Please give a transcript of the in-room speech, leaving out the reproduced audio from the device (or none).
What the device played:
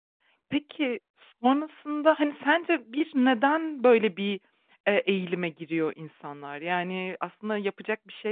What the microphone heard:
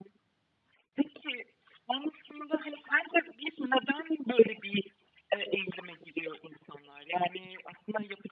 none